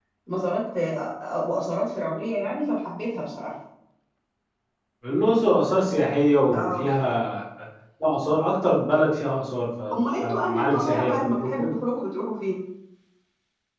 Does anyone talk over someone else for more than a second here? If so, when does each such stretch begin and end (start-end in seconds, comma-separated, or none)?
10.2-11.7